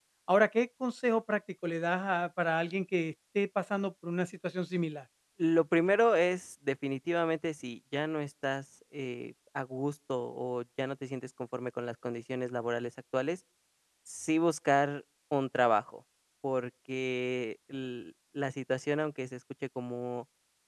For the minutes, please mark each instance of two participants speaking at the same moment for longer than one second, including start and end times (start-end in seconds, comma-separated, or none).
none